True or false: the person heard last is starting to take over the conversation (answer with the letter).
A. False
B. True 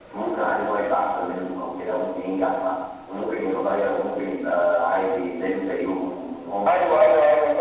B